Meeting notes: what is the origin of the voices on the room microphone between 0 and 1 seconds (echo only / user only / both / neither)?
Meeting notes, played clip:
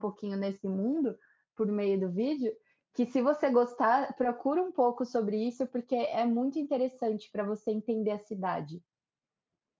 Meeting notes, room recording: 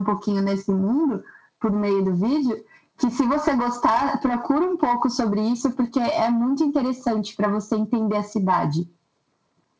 echo only